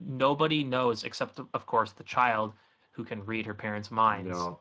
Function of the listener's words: listening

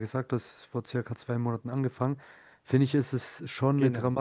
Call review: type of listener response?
listening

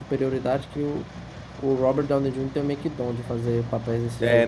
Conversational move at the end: taking over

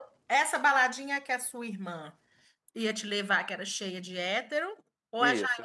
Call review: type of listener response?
taking over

